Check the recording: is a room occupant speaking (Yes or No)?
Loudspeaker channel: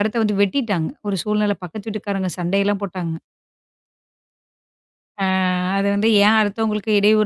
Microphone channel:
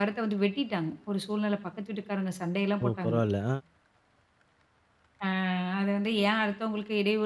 Yes